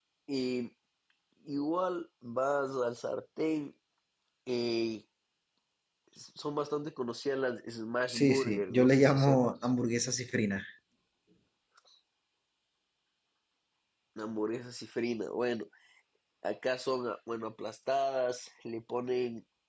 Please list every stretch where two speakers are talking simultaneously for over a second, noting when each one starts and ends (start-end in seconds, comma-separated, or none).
8.1-9.6